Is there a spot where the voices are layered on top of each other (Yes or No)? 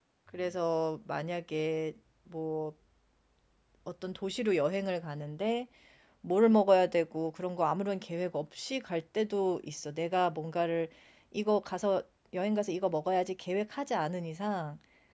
No